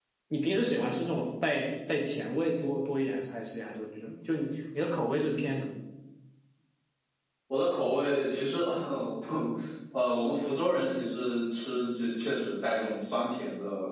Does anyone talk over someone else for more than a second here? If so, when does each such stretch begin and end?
none

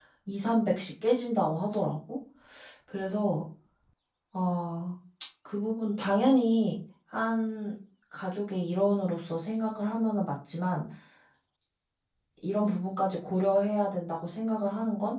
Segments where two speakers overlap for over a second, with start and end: none

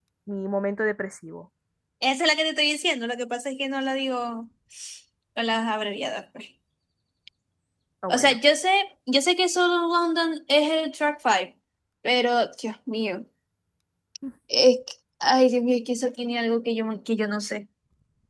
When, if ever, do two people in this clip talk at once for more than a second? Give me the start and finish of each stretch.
none

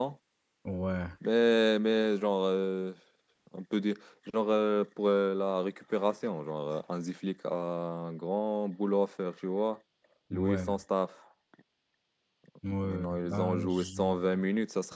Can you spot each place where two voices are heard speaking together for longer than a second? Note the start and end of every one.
12.8-14.2

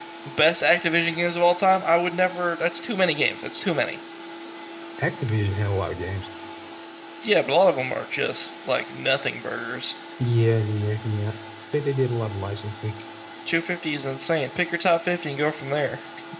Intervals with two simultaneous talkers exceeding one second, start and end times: none

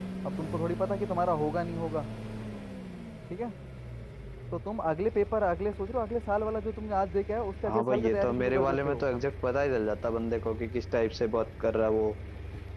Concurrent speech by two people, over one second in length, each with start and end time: 7.7-9.1

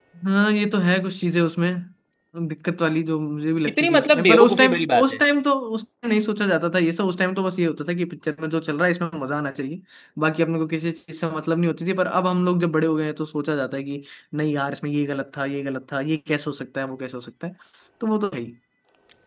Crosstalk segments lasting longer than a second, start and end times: 3.8-5.2

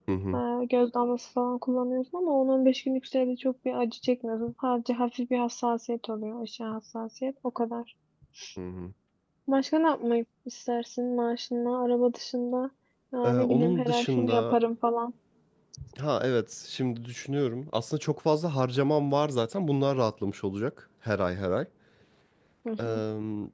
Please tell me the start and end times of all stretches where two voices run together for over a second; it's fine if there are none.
13.2-14.6

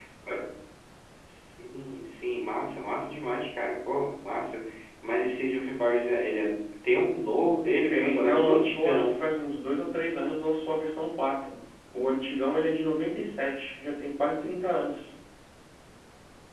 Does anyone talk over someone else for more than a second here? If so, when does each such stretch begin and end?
7.7-9.2

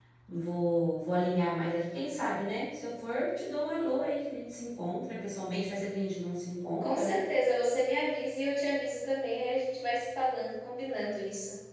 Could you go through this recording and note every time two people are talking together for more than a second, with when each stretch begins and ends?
none

